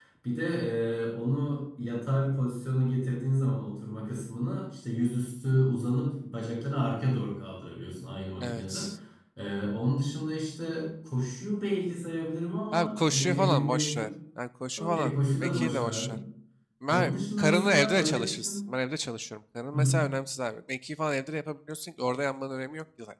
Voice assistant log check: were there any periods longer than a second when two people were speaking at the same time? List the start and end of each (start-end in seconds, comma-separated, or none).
12.7-14.1, 14.8-16.2, 16.9-18.6